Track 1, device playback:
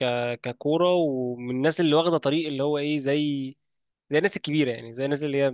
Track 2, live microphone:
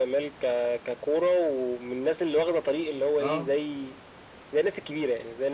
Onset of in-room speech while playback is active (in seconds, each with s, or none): 3.2 s